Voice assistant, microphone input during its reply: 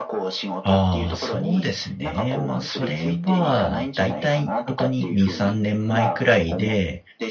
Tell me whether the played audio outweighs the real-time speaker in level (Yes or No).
No